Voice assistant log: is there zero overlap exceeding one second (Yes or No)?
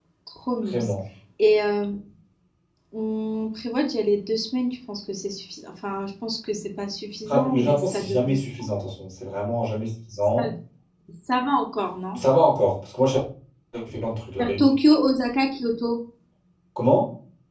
No